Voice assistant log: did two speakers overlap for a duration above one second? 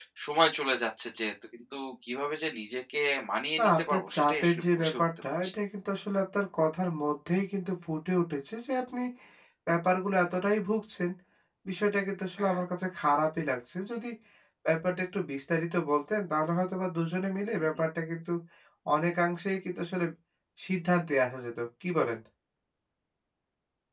Yes, from 3.6 s

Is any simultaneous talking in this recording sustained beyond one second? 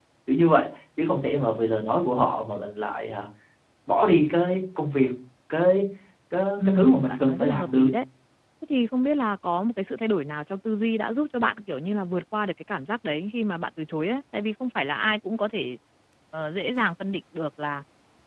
Yes, from 6.7 s

